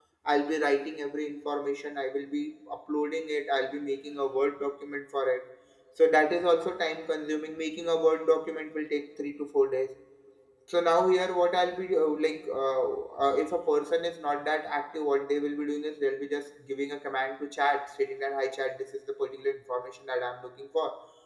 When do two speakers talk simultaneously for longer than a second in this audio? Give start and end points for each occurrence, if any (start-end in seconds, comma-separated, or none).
none